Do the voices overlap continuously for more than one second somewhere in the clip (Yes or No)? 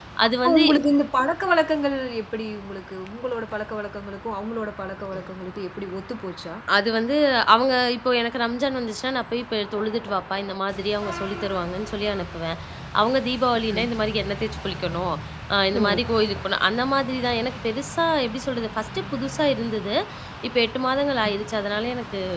No